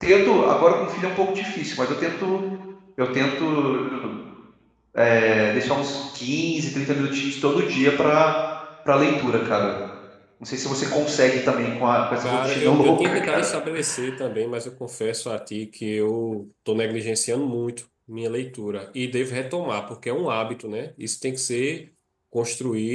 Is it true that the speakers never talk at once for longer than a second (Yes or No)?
No